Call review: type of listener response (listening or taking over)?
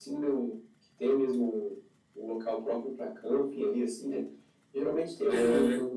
listening